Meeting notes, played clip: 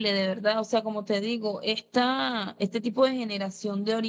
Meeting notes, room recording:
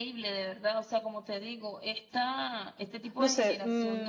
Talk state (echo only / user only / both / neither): both